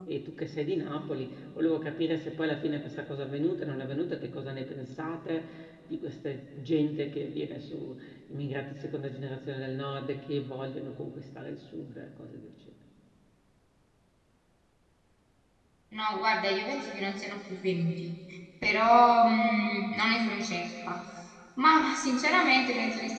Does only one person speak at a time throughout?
Yes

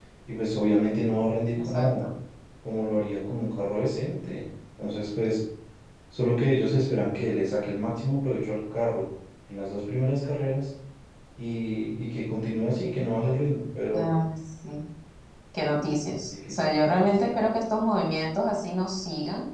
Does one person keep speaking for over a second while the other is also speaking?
Yes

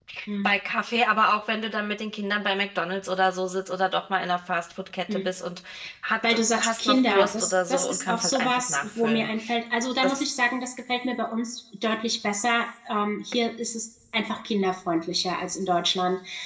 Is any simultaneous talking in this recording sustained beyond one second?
Yes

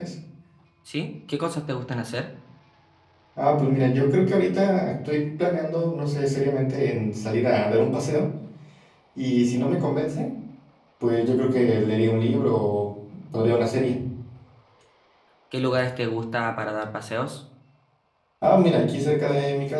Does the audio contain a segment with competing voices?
No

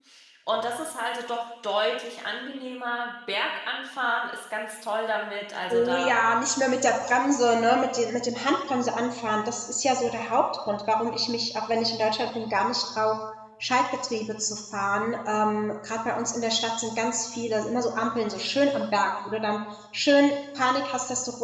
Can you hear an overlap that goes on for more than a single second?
No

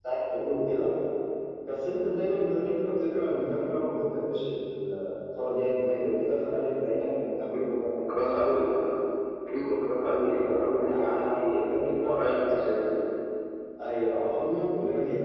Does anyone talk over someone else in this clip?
Yes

